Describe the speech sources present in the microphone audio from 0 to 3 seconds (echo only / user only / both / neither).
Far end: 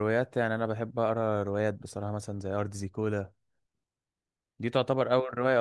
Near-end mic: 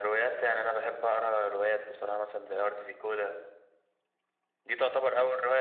echo only